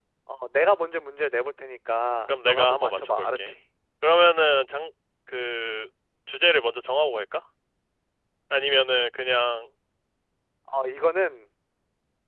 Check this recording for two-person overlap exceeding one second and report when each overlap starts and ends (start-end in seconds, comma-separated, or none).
2.3-3.5